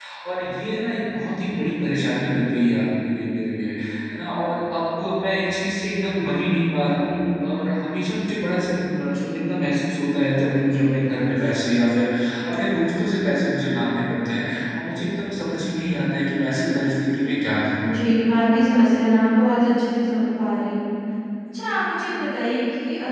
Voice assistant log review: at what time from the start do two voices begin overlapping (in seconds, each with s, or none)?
none